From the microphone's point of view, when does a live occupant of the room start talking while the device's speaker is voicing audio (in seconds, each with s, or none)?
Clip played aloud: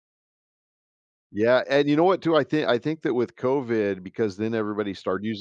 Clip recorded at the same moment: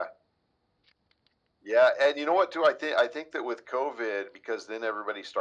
none